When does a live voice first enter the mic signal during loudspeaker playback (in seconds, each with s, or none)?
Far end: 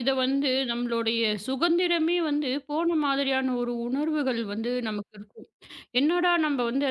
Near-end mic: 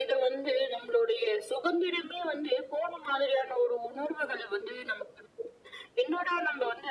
none